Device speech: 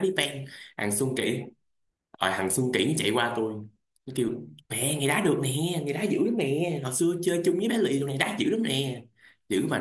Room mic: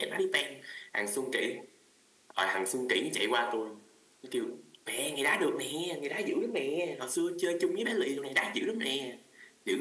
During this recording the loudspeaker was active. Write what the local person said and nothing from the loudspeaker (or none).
none